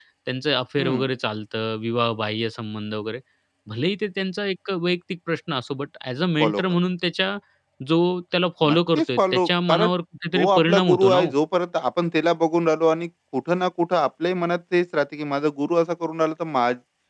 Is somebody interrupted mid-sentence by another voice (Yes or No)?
Yes